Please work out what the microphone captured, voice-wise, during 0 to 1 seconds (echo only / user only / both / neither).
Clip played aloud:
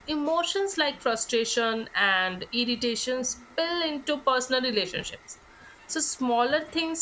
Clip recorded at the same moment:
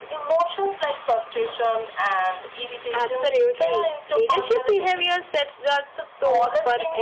echo only